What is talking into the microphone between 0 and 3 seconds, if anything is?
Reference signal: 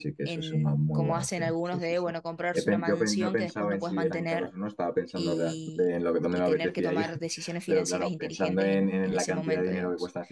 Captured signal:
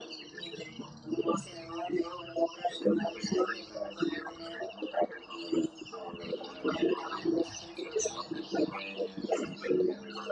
echo only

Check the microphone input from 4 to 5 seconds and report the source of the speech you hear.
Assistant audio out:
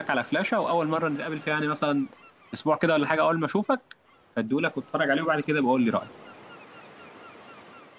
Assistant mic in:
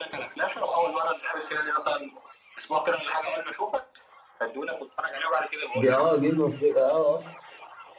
echo only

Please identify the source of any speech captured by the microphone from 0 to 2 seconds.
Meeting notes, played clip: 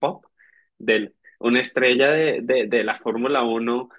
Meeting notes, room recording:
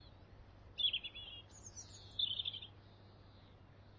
neither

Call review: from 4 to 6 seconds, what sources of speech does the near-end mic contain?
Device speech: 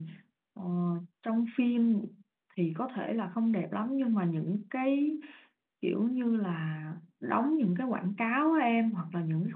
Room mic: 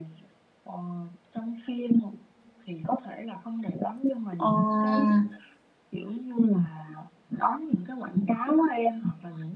both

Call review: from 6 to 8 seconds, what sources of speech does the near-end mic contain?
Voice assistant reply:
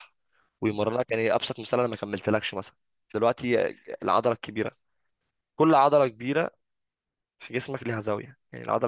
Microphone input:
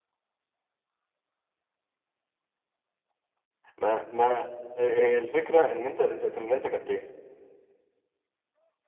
user only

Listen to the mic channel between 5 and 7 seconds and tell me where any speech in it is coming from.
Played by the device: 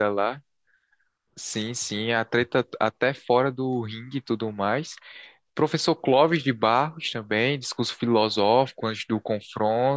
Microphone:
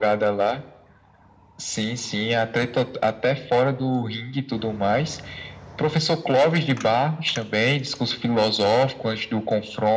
echo only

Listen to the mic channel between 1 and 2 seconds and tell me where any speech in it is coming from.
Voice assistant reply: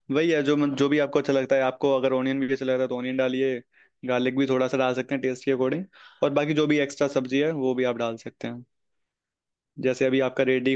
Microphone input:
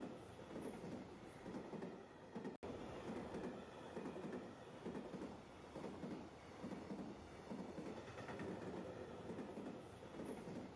neither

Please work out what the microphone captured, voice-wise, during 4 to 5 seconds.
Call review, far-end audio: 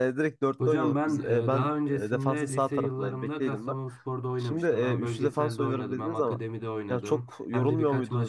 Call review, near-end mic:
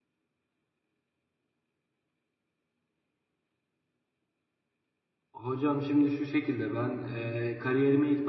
neither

